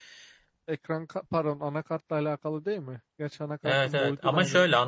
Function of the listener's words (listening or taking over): taking over